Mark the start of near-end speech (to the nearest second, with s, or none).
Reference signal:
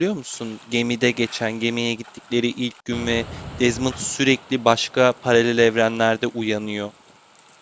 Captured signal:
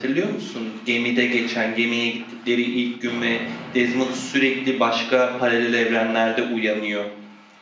none